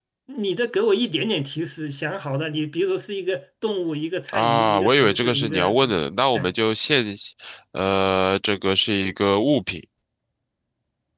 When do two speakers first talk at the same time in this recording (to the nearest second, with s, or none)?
4 s